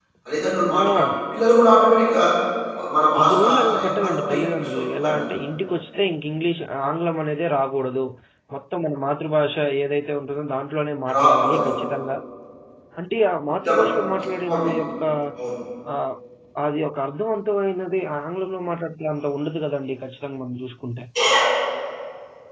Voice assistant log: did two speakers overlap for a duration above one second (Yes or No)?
Yes